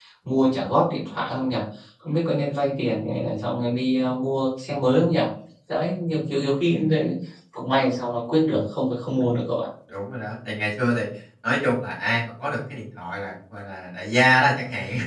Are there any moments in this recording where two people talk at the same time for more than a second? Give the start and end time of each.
none

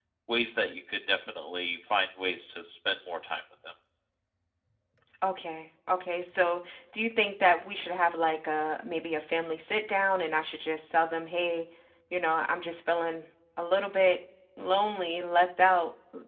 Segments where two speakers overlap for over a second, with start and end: none

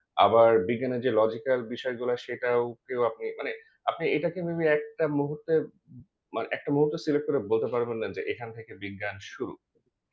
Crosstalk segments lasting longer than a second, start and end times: none

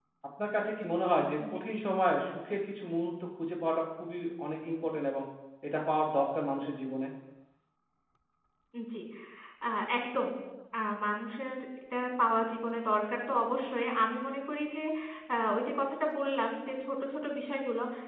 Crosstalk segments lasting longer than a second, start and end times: none

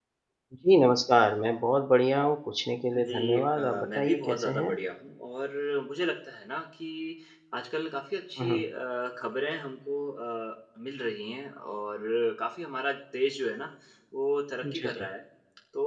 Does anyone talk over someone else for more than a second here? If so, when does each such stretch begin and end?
2.9-4.8

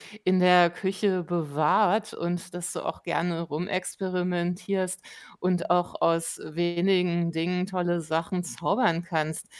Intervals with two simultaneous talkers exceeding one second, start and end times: none

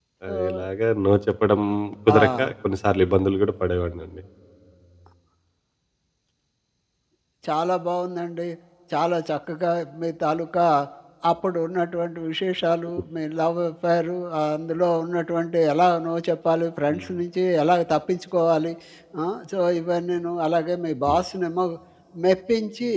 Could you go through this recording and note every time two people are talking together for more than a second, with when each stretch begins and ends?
none

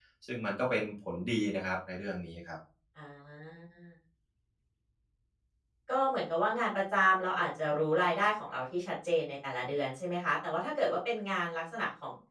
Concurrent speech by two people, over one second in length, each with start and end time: none

